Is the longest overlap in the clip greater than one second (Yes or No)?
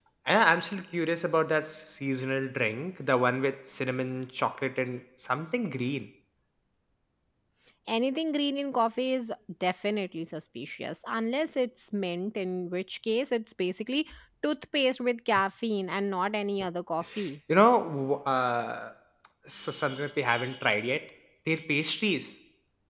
No